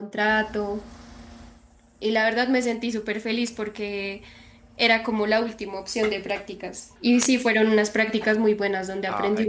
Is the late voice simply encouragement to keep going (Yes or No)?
No